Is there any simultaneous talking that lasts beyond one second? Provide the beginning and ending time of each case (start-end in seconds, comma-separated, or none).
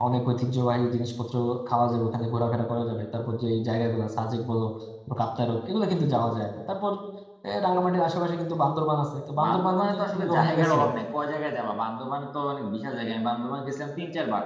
9.4-10.8